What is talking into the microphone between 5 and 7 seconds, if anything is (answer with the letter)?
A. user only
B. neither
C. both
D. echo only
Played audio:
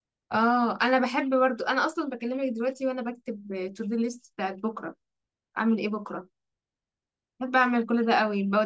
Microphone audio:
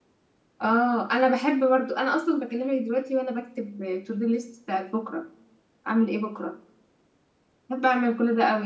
D